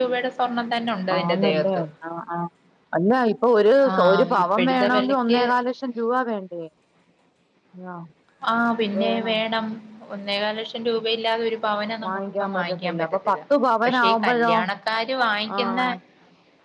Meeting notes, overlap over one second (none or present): present